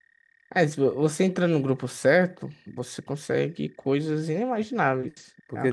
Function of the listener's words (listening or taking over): taking over